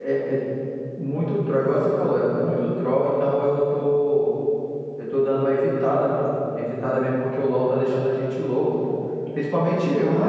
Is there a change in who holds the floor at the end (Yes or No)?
Yes